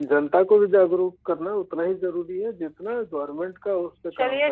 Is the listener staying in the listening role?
No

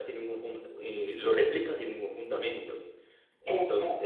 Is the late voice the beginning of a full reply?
No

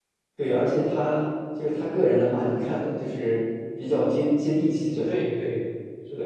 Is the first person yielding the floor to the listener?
Yes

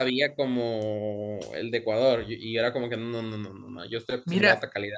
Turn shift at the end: Yes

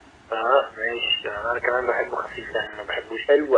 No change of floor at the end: No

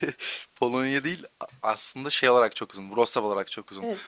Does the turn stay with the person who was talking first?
Yes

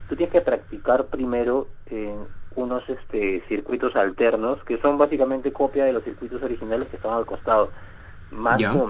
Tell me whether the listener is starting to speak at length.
No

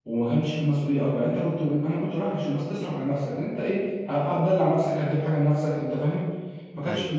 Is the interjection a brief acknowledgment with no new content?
Yes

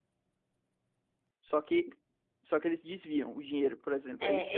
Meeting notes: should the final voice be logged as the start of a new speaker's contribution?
Yes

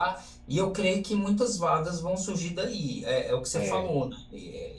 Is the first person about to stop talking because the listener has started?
No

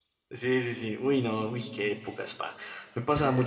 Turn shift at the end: No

